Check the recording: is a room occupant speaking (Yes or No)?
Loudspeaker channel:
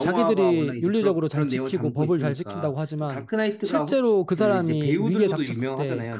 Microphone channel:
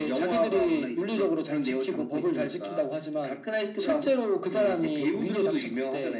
No